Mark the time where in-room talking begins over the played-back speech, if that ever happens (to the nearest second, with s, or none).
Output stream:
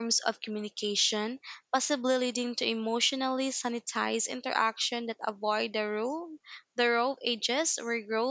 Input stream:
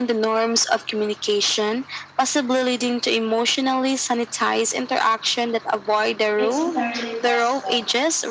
6 s